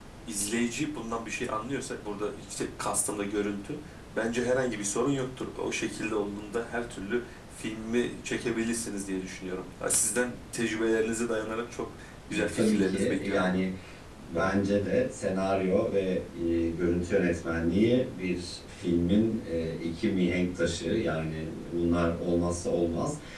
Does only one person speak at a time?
No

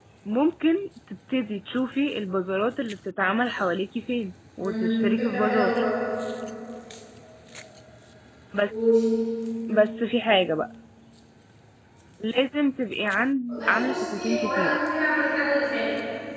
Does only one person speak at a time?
No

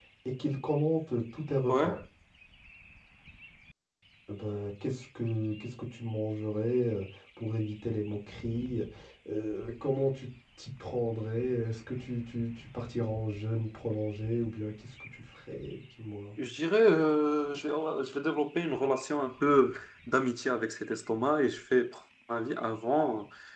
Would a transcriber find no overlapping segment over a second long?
Yes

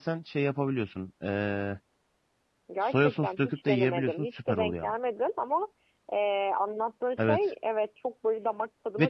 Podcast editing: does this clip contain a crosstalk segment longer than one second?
Yes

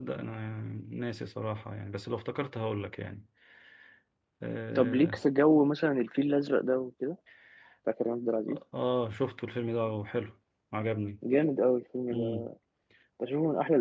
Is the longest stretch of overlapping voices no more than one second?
Yes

